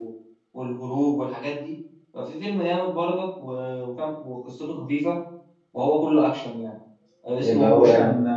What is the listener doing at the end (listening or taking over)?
listening